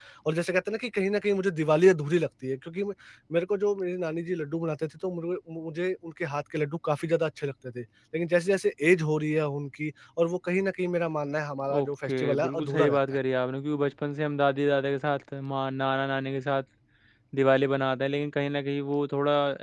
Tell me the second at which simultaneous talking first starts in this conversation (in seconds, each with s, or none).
11.7 s